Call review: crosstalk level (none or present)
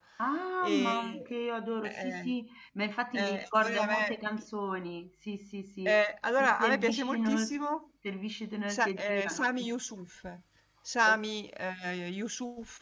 present